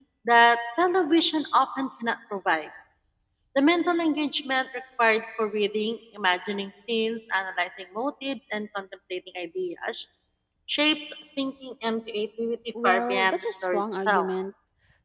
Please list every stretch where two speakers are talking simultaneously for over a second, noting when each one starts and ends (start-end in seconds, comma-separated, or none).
12.8-14.3